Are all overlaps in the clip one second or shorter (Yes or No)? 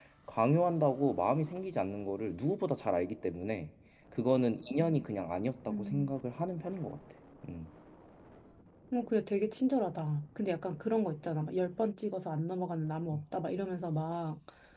Yes